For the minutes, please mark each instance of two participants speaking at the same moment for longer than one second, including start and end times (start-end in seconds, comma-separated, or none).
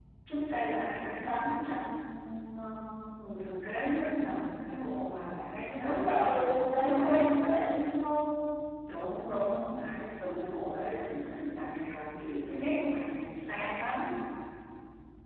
5.8-7.3